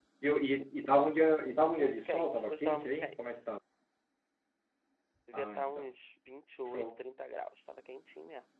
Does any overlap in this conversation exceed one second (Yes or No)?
Yes